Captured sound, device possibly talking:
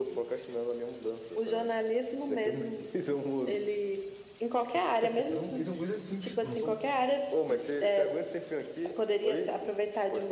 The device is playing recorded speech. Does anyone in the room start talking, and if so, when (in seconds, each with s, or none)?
5.2 s